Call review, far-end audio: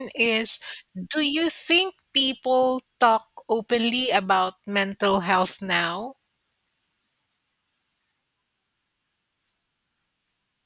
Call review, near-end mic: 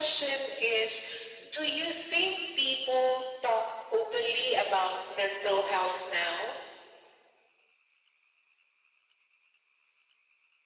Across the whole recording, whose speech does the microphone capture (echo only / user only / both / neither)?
echo only